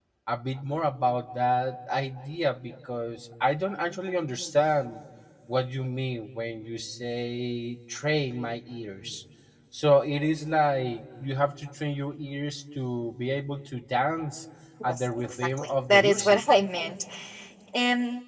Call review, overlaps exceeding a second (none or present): present